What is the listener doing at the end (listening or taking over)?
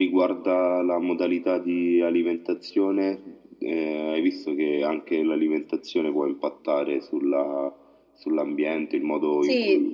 listening